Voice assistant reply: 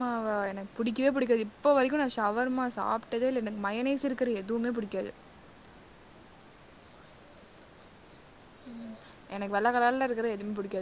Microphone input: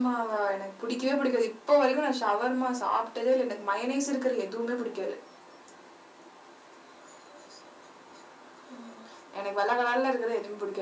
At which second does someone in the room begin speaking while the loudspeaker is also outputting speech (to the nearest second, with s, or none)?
none